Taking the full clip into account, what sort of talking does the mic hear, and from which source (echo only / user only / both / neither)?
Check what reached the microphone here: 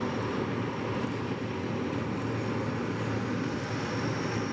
neither